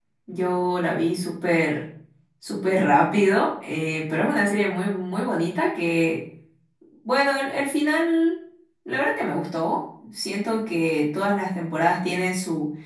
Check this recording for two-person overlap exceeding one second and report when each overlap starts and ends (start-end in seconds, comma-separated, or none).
none